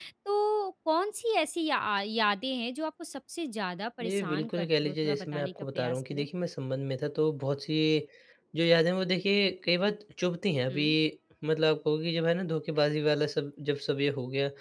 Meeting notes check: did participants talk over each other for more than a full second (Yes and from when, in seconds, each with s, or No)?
Yes, from 4.0 s